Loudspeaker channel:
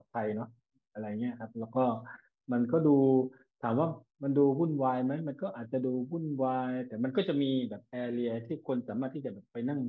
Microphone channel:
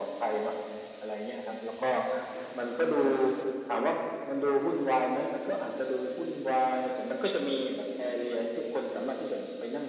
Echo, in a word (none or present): present